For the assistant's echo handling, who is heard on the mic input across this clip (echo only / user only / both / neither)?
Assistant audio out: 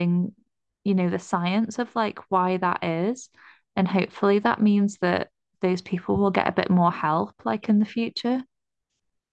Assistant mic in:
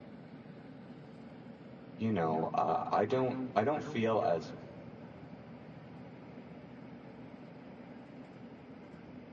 user only